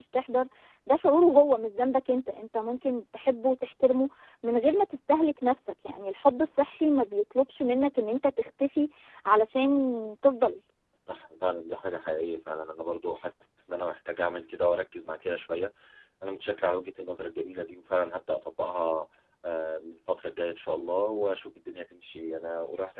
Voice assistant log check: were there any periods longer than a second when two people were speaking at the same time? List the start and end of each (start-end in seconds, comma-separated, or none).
none